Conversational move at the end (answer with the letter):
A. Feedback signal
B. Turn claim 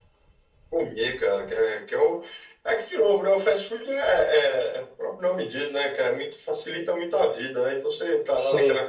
A